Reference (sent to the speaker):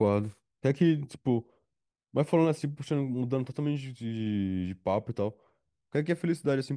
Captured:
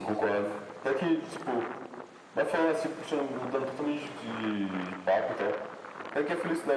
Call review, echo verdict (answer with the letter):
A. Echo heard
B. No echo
A